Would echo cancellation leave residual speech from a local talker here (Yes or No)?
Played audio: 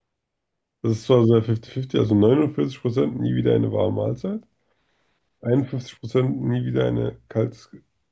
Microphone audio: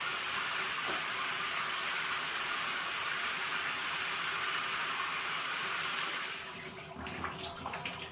No